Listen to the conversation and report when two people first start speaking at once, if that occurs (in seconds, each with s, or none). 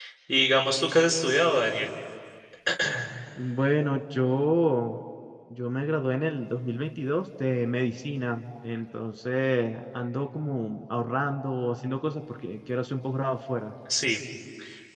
none